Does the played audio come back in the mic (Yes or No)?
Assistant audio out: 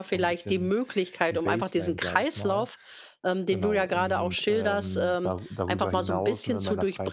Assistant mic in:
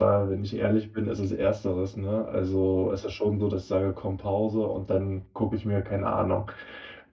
No